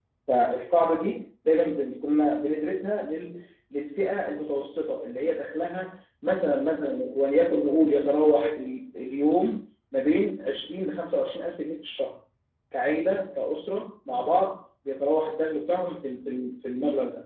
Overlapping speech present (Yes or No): No